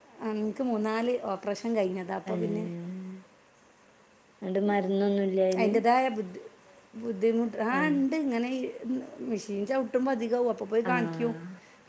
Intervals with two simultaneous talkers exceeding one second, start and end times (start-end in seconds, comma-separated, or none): none